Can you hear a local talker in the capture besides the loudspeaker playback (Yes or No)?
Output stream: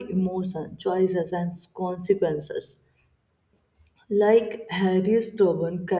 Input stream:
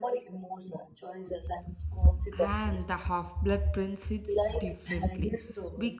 Yes